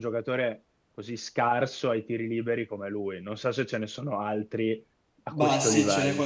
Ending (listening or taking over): taking over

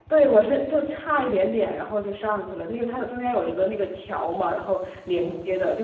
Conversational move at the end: listening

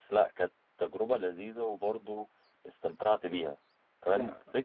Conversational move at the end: listening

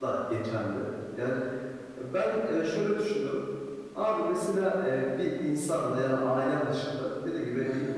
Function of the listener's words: listening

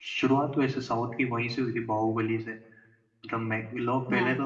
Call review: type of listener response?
listening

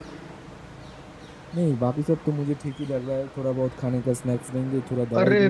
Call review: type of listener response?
taking over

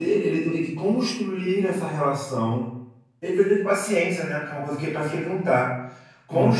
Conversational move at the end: listening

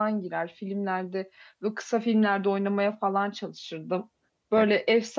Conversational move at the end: listening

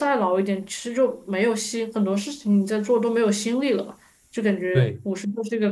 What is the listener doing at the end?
listening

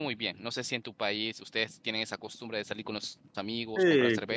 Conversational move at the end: taking over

